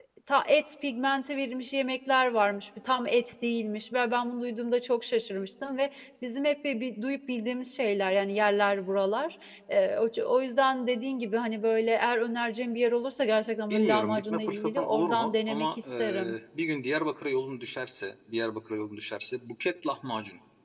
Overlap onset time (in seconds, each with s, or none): 13.7 s